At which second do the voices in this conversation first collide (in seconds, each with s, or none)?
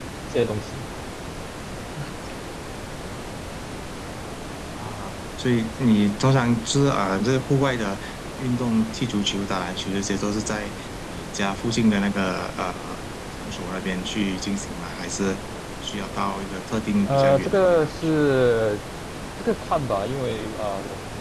17.1 s